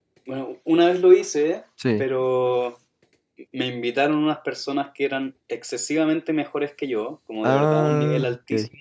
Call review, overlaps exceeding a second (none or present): present